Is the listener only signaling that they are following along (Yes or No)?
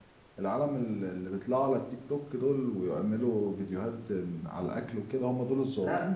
No